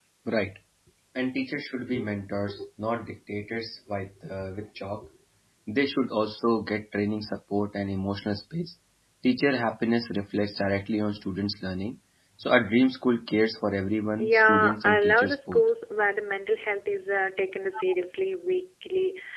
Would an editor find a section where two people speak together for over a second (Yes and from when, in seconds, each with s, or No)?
Yes, from 14.2 s